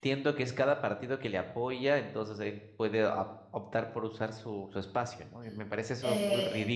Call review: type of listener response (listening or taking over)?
taking over